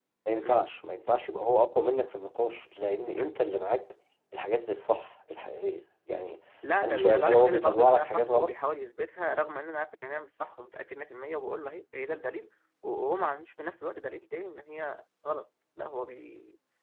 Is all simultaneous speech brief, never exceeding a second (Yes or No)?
No